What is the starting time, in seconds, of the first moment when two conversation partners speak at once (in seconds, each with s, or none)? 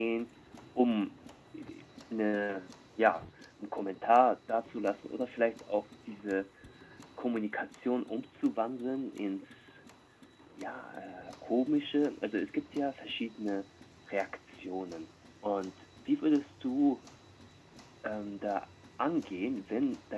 none